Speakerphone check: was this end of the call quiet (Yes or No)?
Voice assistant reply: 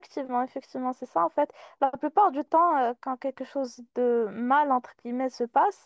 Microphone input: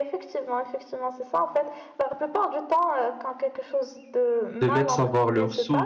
No